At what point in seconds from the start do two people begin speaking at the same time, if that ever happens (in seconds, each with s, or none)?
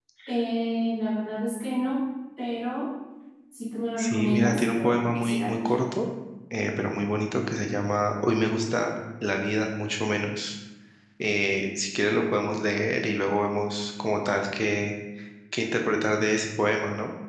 4.0 s